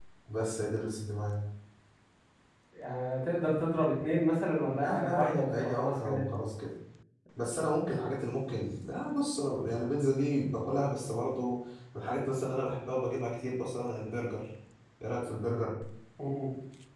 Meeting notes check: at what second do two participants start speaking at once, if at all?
5 s

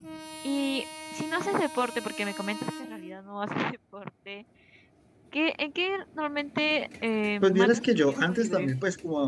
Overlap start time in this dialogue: 7 s

